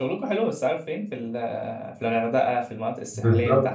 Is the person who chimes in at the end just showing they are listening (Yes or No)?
No